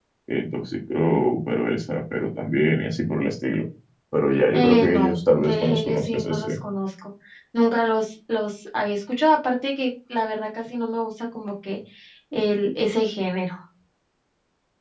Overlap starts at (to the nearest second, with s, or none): 5 s